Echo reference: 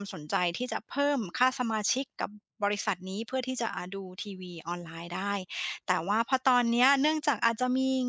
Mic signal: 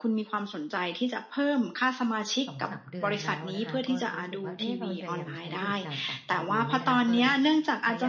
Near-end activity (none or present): present